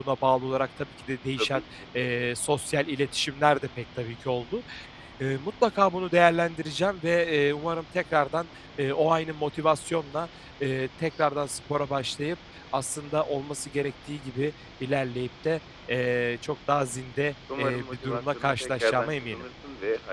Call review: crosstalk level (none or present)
present